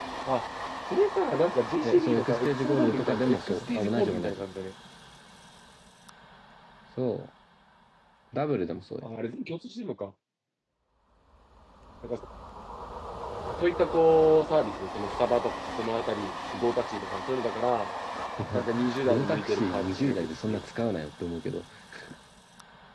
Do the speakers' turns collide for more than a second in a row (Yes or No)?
Yes